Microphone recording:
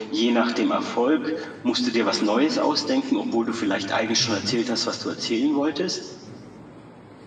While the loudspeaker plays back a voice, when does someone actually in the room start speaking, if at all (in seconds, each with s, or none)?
4.2 s